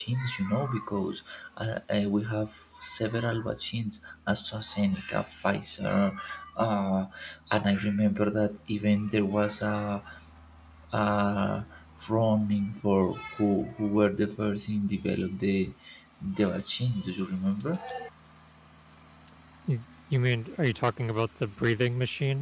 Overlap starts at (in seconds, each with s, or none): none